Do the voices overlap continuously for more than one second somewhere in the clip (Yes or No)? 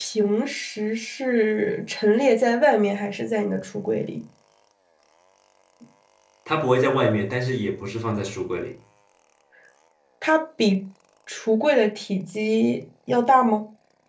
No